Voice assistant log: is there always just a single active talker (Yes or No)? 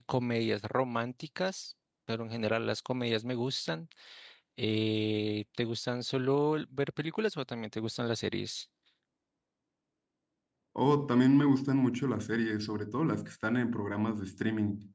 Yes